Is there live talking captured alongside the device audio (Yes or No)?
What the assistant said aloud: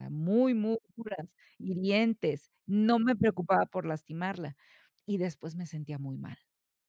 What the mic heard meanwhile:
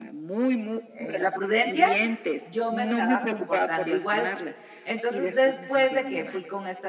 Yes